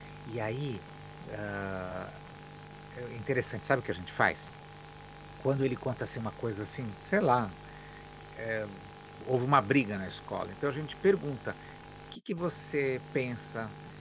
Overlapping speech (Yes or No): No